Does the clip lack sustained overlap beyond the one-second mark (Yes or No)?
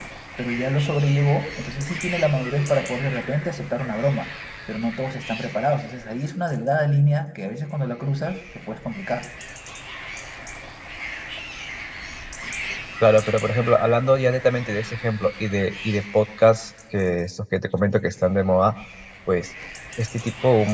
Yes